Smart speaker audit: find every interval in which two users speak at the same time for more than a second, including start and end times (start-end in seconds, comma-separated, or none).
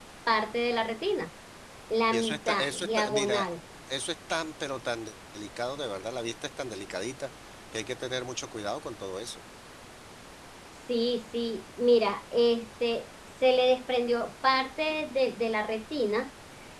2.1-3.5